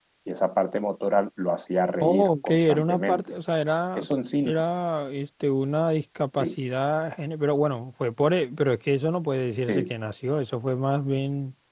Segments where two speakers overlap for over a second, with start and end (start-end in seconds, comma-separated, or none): 2.0-3.3